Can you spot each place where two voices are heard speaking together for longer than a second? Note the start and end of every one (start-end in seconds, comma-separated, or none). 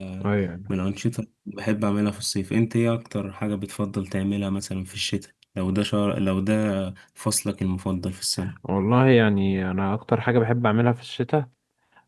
none